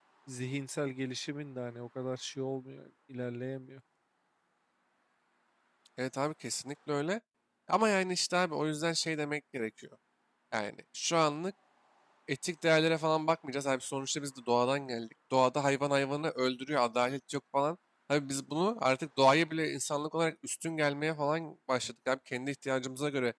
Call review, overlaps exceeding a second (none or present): none